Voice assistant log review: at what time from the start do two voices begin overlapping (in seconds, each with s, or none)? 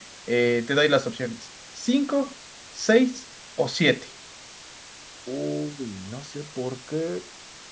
none